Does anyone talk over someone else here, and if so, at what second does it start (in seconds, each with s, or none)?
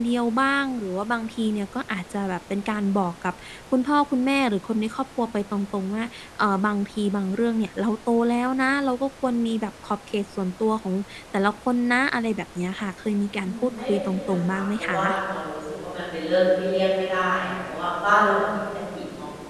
13.4 s